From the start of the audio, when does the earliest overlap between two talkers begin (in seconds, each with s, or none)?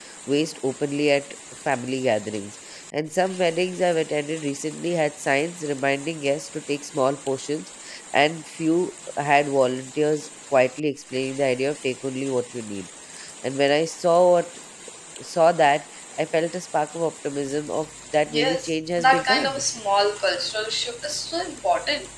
18.3 s